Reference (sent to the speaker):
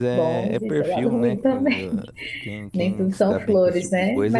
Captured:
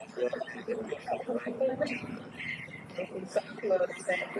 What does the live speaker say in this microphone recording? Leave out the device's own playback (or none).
none